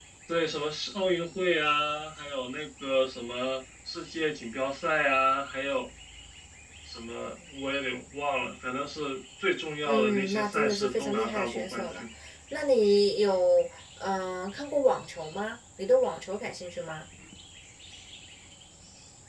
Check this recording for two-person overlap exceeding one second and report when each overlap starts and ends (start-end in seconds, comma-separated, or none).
9.8-12.0